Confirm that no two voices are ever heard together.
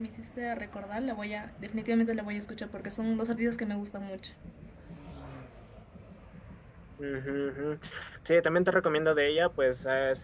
Yes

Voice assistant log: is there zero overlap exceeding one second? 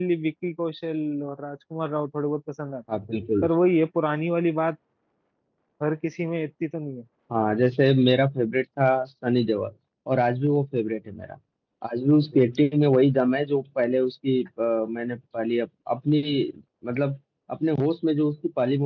Yes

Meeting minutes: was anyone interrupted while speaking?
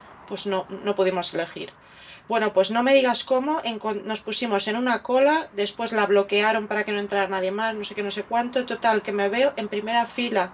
No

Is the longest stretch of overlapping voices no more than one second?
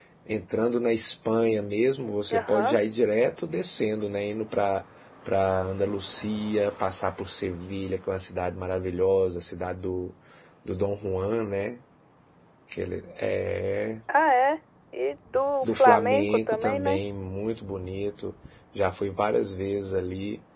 No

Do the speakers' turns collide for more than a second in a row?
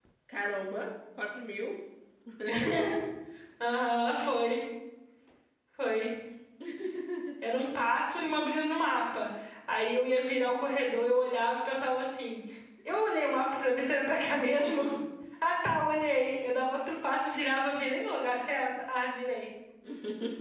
No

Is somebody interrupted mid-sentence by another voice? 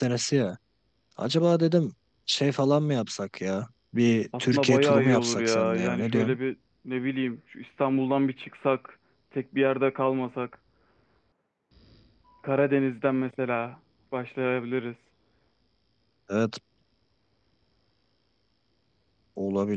Yes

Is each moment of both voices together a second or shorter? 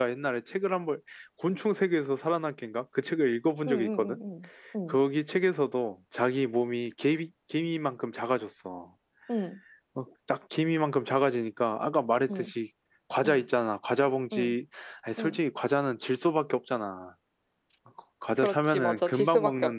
No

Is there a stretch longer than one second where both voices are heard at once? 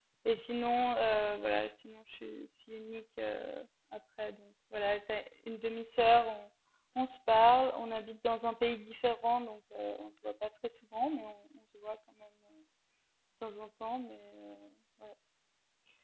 No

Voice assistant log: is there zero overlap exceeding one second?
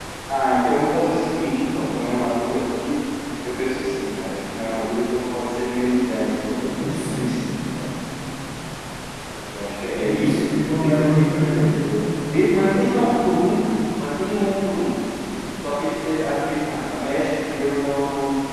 No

